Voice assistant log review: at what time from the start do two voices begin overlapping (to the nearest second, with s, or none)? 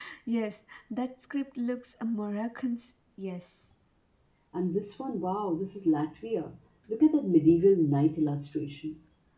none